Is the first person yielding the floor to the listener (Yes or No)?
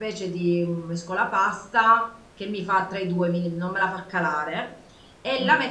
No